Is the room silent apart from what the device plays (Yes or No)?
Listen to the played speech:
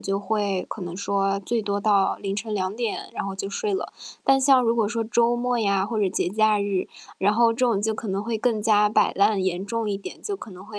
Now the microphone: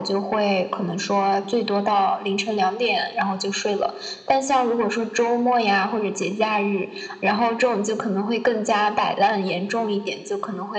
Yes